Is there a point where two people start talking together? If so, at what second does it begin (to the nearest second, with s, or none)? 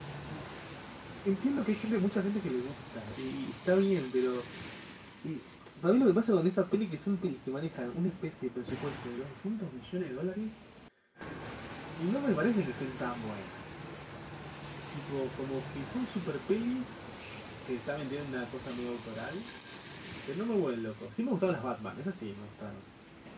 none